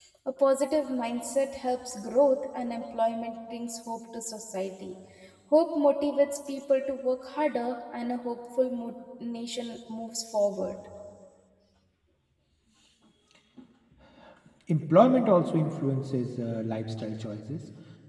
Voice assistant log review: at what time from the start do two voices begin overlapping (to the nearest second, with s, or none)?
none